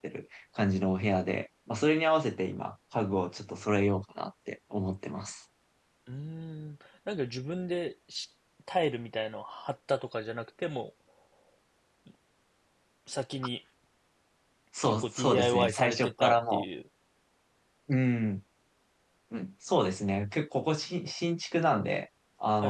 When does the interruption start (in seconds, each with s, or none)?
14.8 s